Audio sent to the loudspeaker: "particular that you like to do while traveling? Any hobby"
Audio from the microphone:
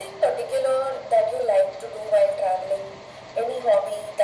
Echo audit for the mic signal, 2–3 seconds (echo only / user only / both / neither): echo only